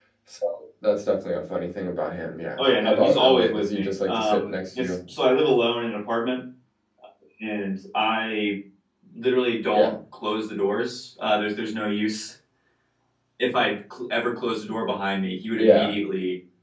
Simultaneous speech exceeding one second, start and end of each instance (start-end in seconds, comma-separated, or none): 2.6-4.9